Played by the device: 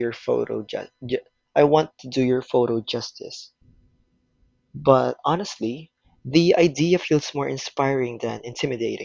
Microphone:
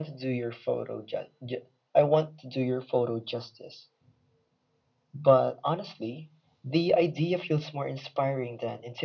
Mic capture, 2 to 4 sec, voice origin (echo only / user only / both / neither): echo only